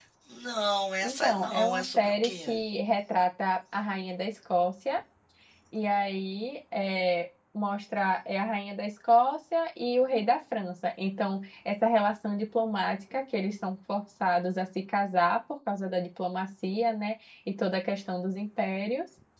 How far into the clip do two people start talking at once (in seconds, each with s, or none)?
1.0 s